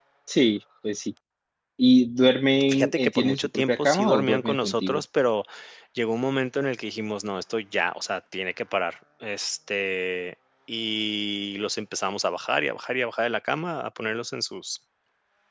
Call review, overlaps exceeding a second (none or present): present